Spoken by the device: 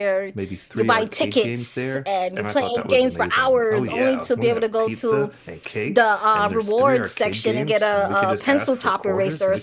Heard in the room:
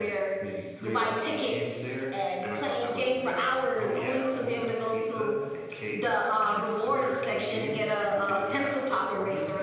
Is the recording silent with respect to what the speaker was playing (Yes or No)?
No